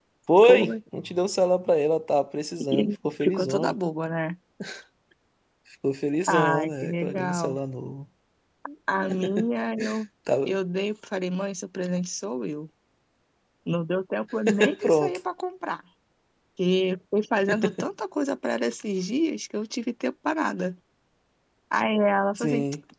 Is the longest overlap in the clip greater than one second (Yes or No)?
Yes